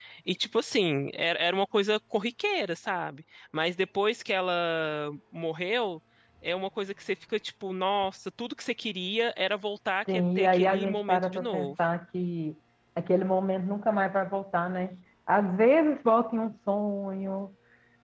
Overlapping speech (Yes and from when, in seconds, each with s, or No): Yes, from 10.0 s